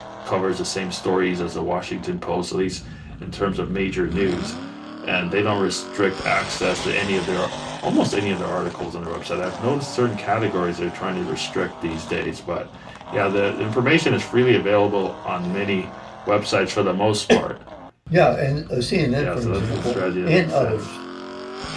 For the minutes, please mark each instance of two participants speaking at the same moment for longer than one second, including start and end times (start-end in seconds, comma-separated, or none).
19.2-20.9